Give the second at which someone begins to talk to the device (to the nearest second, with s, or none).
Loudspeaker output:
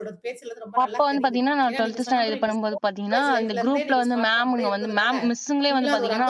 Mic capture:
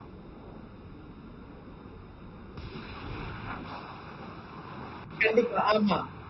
5 s